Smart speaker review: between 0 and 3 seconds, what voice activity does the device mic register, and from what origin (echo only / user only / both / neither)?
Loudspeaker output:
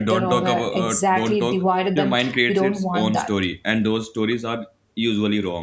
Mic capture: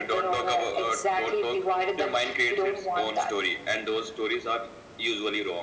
echo only